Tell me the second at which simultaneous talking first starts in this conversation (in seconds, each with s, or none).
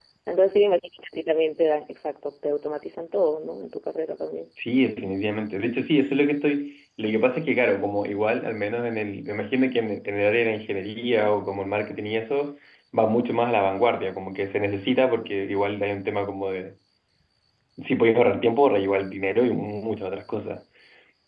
none